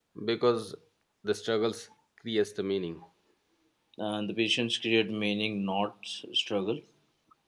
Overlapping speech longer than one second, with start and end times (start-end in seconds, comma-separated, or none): none